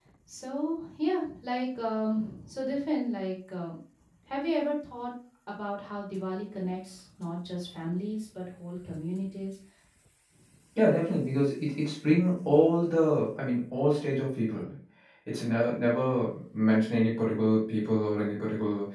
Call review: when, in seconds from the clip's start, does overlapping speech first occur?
none

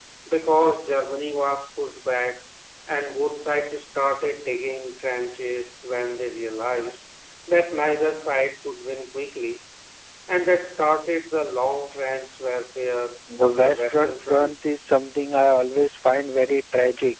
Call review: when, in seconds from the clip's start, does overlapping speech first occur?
13.3 s

